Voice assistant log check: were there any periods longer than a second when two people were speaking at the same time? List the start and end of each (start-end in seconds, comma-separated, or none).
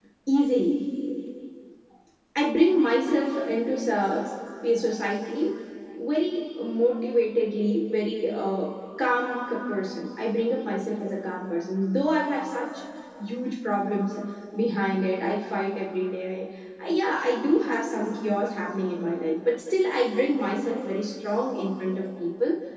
none